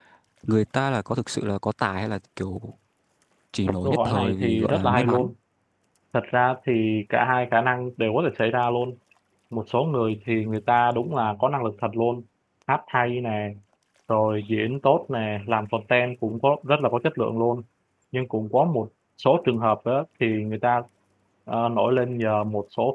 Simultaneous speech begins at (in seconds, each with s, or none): 3.8 s